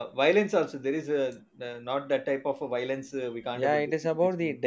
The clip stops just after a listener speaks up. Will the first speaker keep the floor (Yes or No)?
No